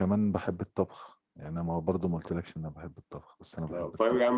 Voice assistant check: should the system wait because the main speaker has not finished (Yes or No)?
No